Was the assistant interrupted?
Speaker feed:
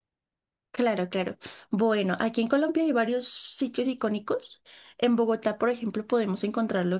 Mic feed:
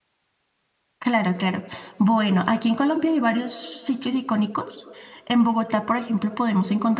No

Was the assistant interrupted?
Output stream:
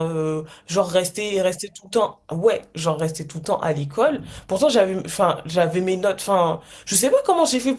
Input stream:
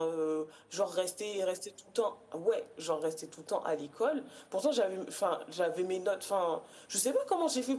No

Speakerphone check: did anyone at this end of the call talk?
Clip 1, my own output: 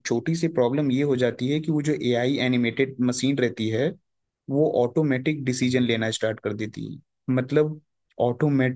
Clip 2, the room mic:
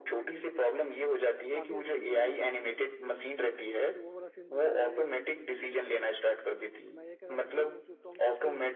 Yes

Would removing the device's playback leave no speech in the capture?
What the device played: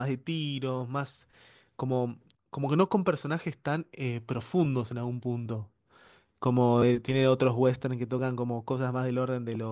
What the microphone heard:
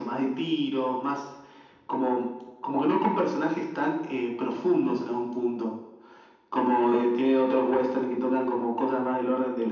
Yes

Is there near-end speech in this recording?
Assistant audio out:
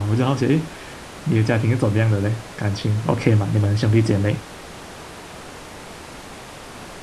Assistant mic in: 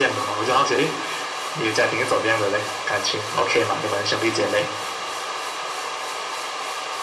No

